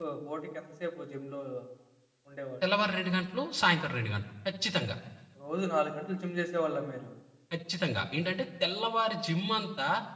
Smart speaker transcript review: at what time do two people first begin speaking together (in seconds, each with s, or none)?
none